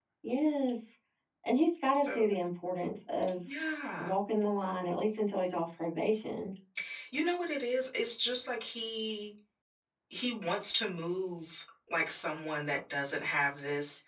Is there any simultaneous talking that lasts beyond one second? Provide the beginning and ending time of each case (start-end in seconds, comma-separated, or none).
none